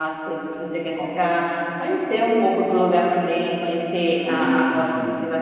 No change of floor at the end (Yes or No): Yes